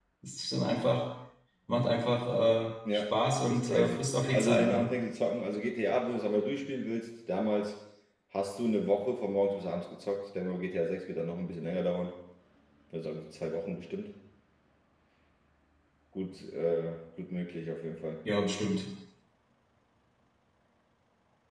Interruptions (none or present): present